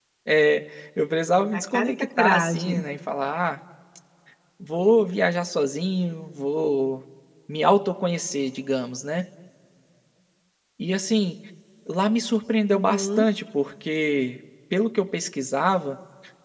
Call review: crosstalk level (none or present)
present